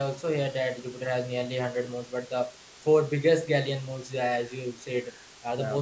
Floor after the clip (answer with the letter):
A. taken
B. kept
B